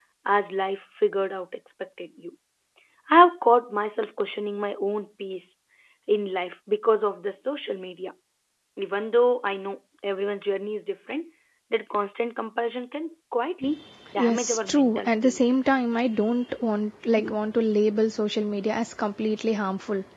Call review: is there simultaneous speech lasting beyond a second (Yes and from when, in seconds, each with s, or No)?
Yes, from 14.2 s